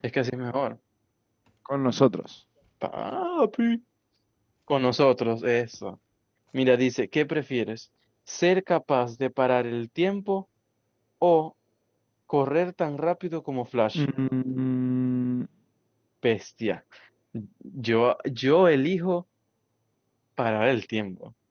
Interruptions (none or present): none